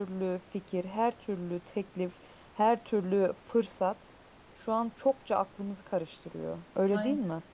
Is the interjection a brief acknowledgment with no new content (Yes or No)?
No